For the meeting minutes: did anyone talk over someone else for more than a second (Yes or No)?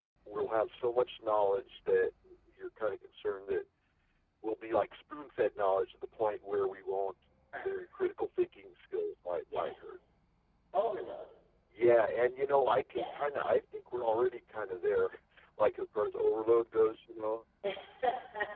No